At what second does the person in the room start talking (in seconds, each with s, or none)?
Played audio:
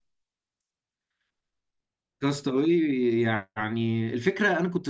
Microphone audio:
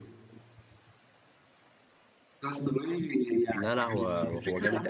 3.5 s